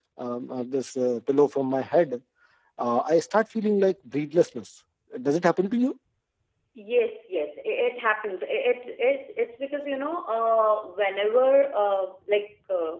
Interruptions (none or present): none